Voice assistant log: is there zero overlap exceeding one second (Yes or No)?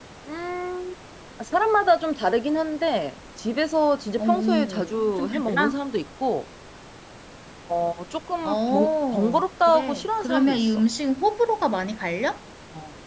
No